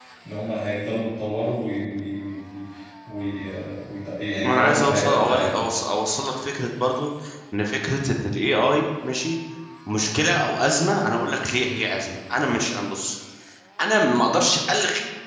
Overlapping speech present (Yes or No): Yes